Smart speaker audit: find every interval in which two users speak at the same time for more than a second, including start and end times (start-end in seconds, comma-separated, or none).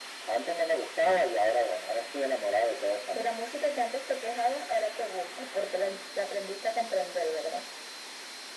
none